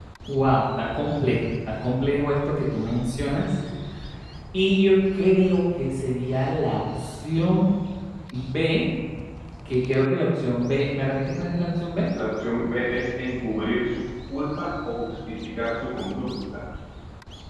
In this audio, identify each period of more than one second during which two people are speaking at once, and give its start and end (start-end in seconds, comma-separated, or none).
none